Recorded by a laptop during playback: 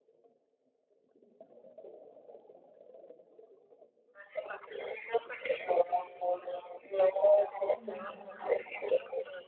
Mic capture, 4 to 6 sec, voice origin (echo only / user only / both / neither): echo only